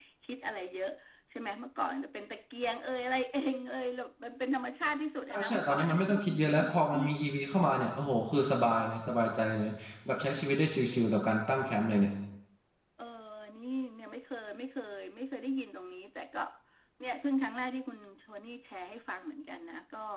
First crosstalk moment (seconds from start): 5 s

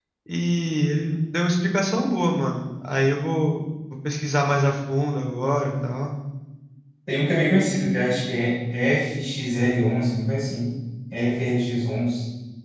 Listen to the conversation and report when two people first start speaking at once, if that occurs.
none

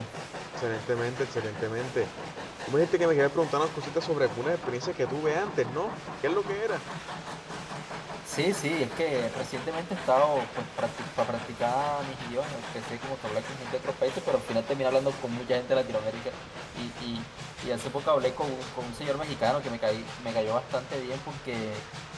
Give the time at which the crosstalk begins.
none

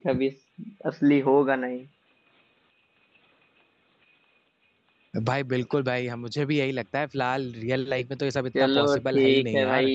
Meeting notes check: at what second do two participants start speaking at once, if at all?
9 s

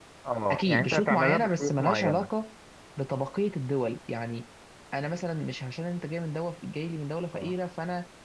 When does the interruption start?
1 s

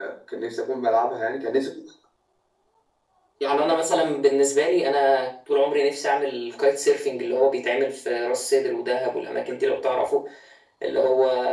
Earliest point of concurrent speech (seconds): none

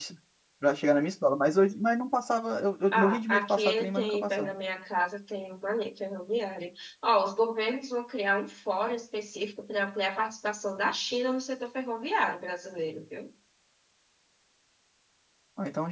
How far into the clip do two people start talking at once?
3 s

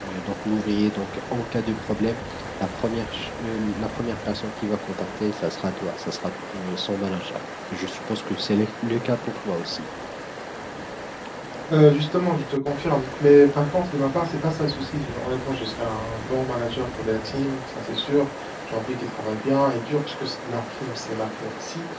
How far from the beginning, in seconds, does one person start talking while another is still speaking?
none

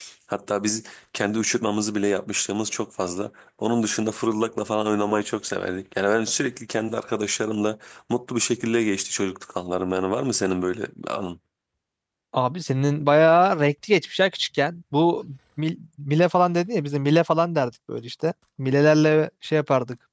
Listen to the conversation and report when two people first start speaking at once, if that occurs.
none

